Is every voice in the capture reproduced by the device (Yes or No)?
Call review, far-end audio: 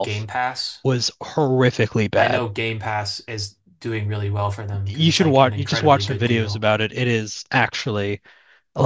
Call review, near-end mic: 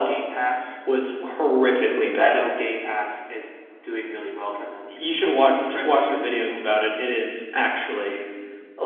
Yes